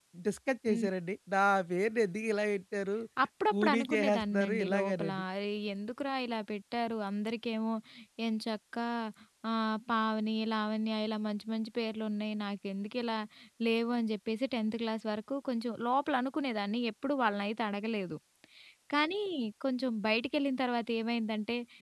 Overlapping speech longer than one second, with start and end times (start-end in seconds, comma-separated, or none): 3.5-5.2